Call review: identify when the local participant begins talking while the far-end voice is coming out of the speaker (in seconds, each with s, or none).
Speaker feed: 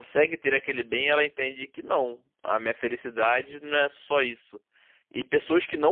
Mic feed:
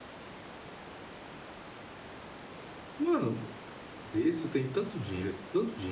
3.0 s